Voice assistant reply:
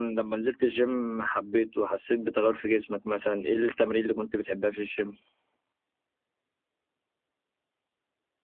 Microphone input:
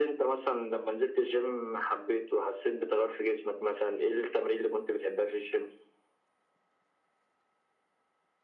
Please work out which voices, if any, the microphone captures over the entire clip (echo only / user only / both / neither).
echo only